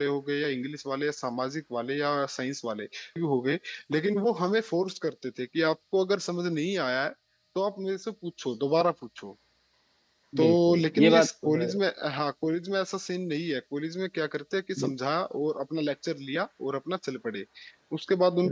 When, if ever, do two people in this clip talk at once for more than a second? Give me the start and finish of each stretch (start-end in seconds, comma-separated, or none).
10.4-11.7